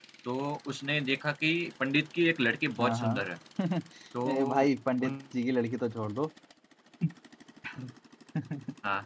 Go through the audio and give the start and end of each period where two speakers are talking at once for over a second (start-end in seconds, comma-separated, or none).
none